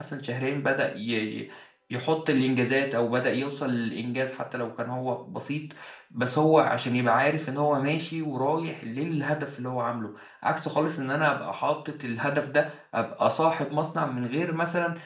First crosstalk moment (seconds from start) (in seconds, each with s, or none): none